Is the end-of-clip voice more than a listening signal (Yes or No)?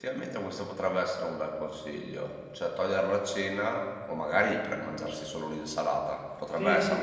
Yes